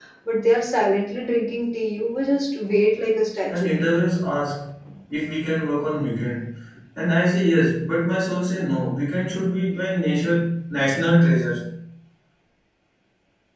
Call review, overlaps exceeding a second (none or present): none